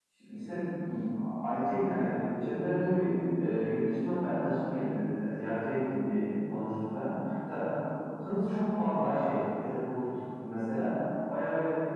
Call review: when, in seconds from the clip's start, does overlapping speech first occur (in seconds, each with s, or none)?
none